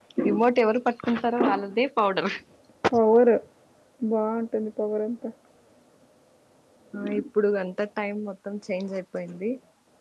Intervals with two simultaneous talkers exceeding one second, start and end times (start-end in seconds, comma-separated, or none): none